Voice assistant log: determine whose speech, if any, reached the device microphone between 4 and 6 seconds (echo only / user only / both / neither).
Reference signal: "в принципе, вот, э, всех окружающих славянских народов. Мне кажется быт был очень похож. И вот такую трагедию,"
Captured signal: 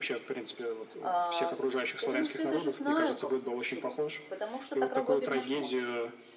both